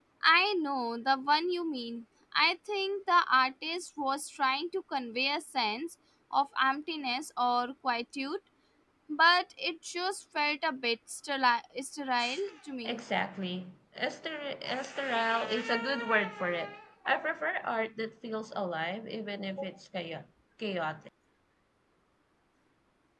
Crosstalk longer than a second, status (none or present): none